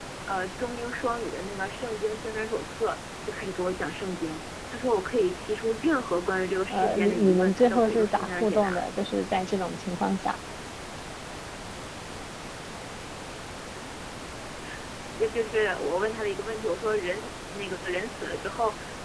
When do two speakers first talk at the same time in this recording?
6.7 s

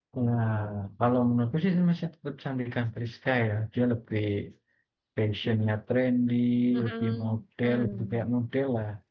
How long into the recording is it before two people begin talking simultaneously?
6.8 s

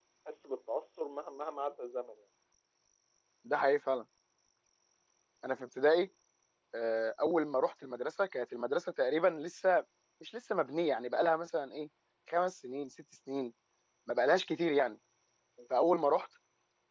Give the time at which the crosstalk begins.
none

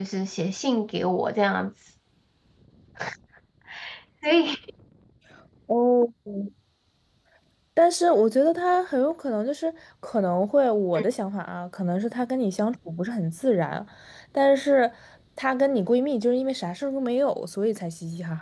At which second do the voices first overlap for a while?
none

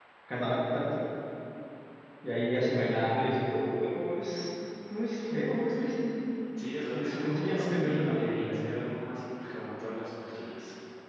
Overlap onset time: 6.9 s

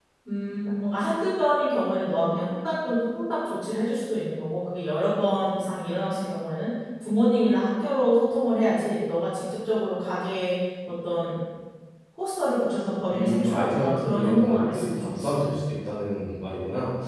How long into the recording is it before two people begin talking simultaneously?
13.1 s

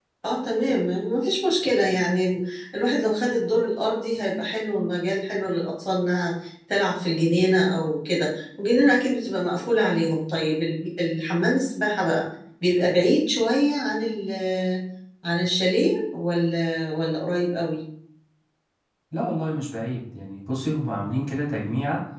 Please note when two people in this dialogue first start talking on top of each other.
none

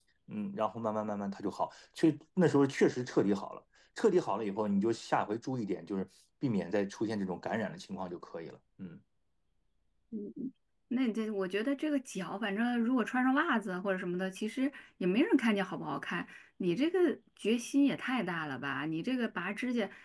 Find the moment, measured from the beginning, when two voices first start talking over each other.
none

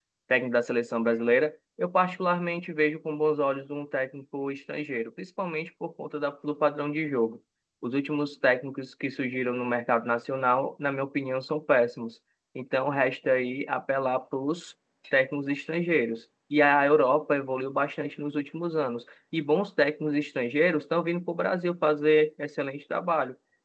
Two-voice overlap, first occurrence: none

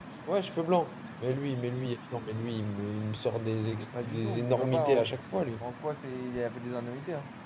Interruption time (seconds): 3.8 s

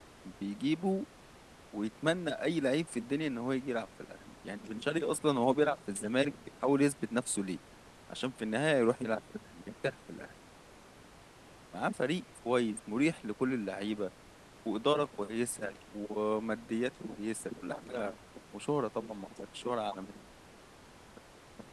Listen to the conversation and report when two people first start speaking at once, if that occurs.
none

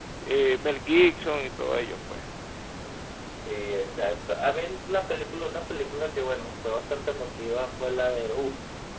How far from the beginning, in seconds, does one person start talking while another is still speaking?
none

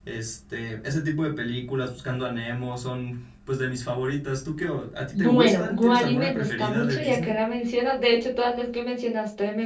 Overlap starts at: 5.1 s

